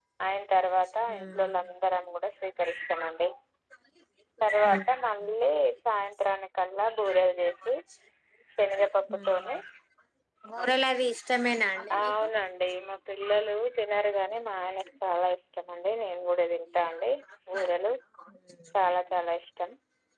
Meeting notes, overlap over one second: none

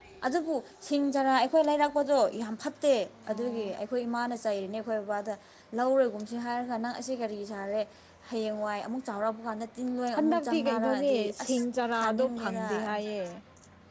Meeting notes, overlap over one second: present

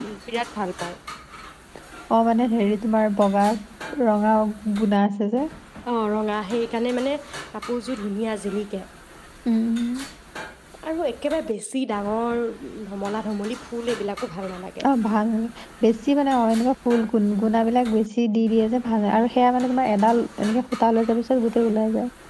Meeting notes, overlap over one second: none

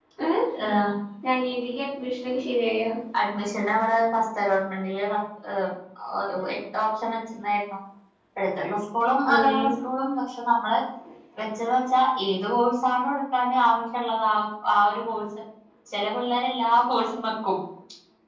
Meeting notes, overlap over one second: none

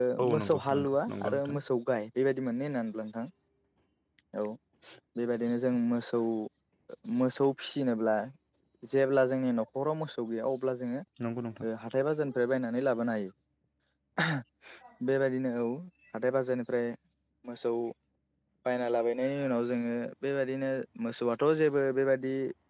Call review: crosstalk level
present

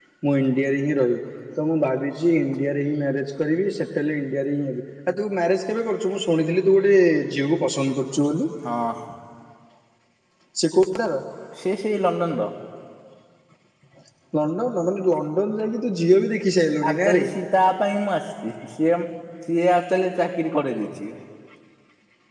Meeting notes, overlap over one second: none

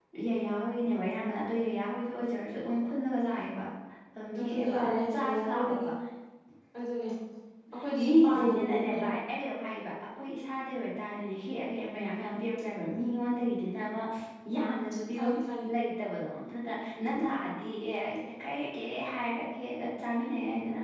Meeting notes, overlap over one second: present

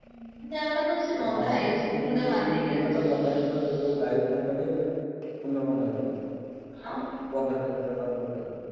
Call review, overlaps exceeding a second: present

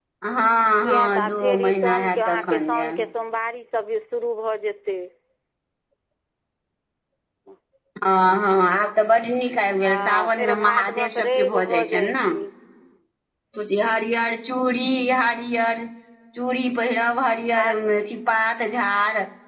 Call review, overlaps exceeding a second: present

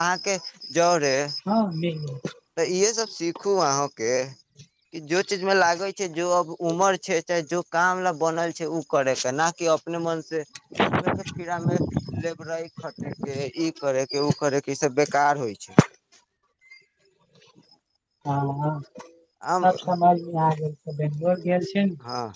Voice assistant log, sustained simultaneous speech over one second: none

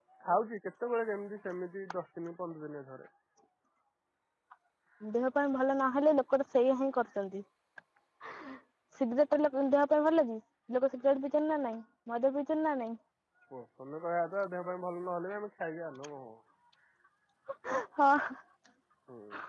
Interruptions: none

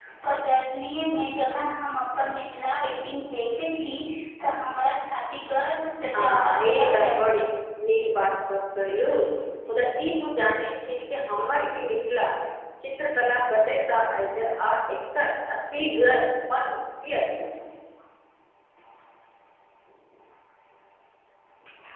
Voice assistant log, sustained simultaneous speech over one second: present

